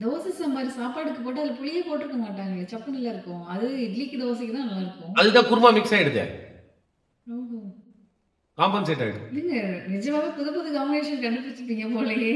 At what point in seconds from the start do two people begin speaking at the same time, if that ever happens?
none

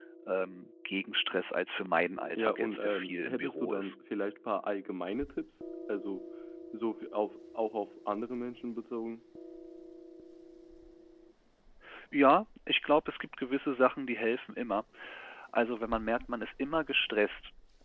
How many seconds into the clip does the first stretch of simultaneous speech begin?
2.4 s

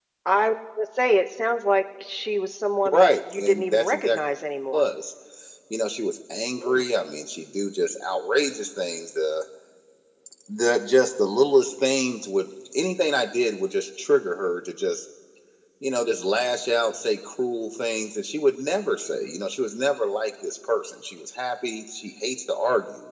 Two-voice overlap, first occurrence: 2.9 s

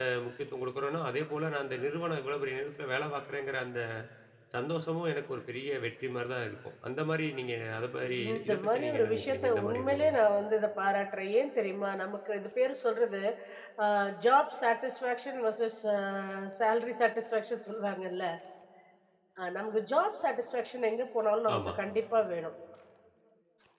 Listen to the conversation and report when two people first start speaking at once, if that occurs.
8.2 s

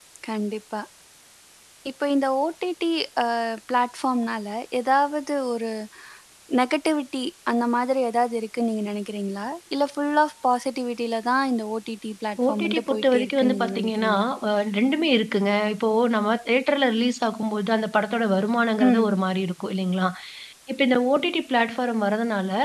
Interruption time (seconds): 12.5 s

